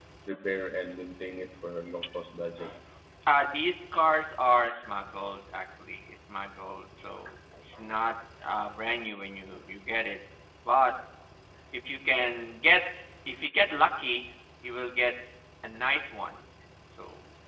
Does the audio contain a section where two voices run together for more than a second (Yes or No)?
No